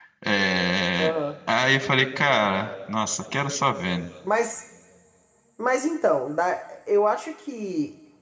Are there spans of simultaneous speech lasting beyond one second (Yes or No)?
No